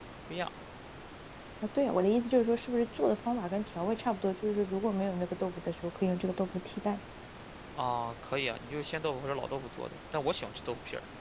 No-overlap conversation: Yes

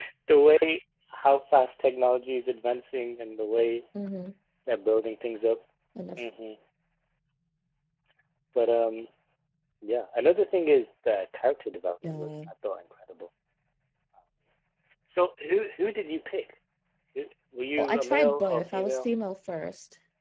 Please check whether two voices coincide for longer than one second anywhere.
Yes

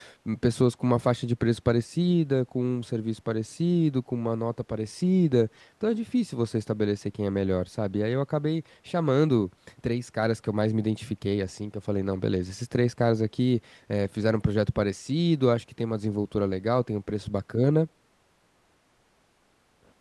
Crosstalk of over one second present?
No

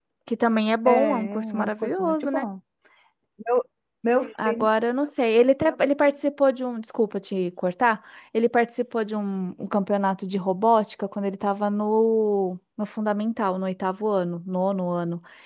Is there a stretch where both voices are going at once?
Yes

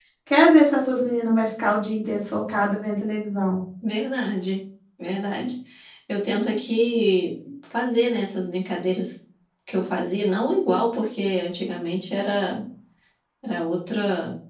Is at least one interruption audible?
No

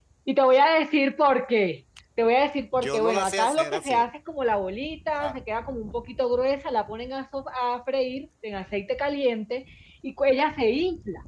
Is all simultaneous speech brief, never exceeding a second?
No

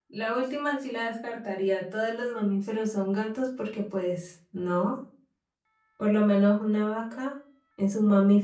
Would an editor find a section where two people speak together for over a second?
No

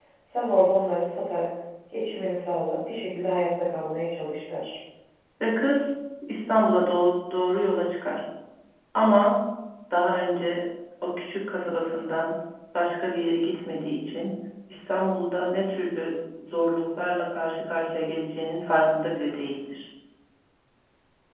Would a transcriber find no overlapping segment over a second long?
Yes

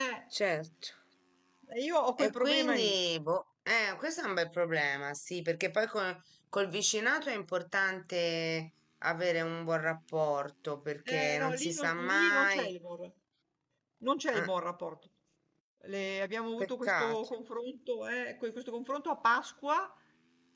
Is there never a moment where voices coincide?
No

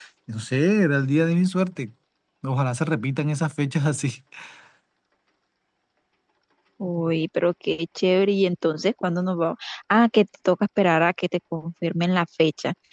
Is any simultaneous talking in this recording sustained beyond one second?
No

